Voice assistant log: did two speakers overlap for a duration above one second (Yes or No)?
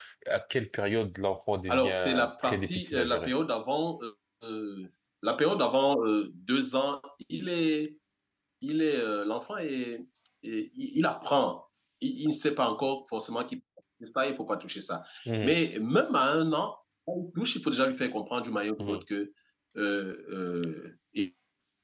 Yes